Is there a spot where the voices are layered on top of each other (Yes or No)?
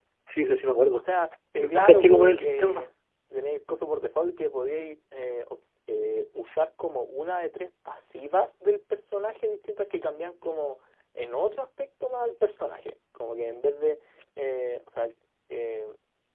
Yes